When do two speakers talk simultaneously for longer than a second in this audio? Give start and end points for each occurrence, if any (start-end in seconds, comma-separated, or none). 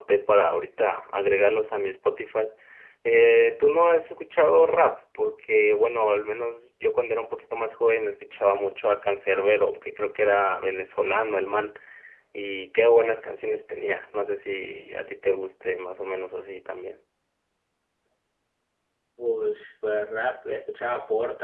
none